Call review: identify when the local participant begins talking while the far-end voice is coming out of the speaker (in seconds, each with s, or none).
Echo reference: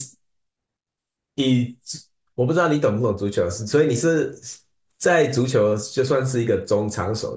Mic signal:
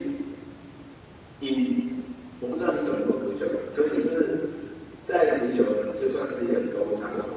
none